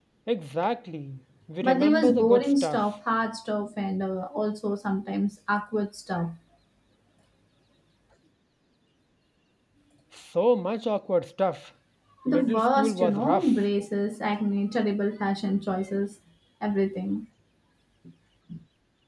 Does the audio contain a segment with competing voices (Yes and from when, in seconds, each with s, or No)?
Yes, from 1.6 s